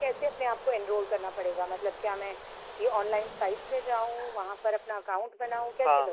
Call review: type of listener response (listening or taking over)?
taking over